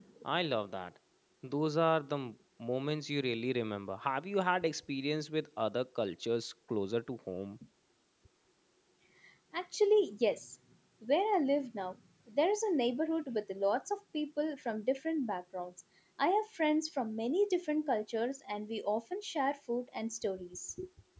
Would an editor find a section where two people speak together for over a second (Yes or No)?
No